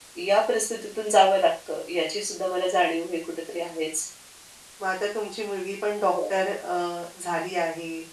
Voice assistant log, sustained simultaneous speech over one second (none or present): none